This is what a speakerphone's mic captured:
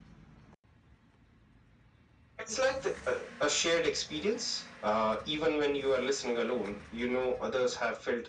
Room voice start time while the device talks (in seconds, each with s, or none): none